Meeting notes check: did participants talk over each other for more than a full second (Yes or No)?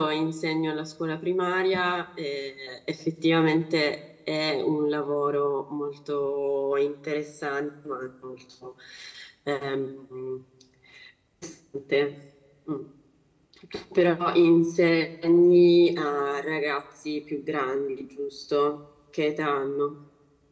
No